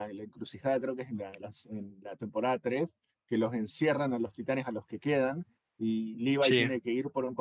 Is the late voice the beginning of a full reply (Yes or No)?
No